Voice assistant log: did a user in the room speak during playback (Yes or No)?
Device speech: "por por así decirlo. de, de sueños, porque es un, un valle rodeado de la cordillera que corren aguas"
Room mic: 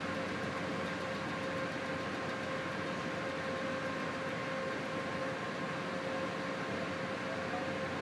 No